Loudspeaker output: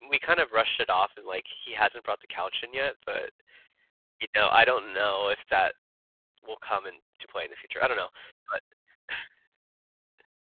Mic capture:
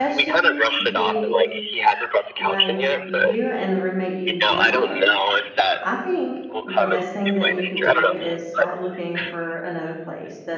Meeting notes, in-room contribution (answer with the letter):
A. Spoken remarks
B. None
A